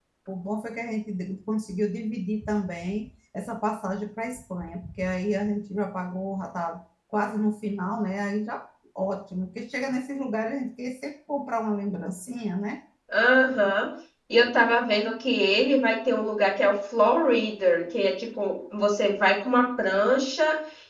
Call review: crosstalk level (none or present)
none